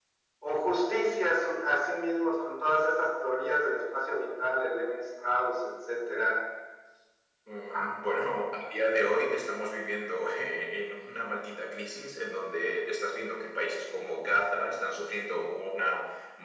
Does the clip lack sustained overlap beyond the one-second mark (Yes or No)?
Yes